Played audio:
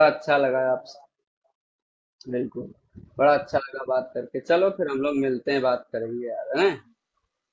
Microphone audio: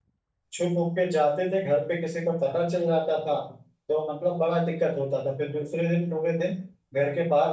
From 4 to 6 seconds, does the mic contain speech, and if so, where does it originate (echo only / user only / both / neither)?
user only